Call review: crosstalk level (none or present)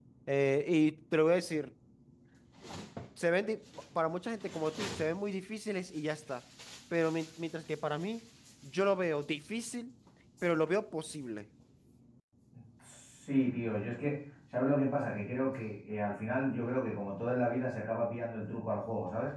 none